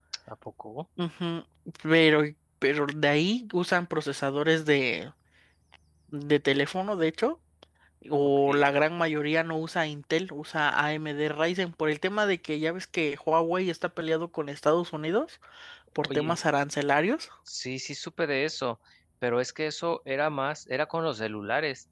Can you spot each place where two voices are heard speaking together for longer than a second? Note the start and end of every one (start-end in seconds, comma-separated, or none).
none